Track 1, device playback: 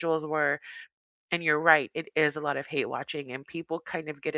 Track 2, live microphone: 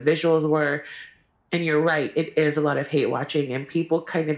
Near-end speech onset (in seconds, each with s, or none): none